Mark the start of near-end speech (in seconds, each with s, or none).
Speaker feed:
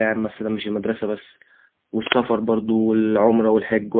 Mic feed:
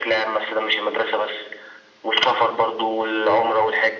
none